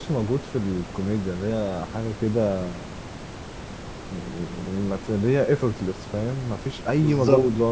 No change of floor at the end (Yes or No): Yes